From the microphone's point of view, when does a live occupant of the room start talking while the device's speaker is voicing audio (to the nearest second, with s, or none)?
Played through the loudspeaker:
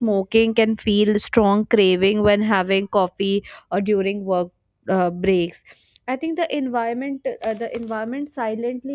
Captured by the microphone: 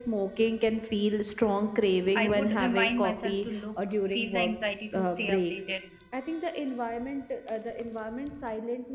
2 s